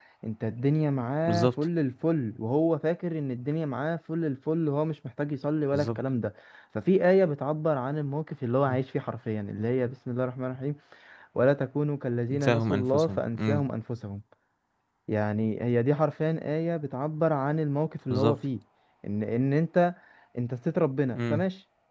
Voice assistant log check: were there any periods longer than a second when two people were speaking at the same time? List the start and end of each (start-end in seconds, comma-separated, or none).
12.3-13.7